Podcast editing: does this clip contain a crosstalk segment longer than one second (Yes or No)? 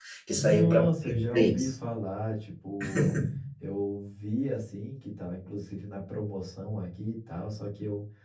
Yes